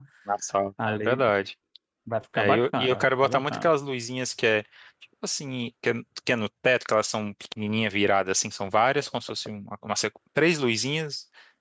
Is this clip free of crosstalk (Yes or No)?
No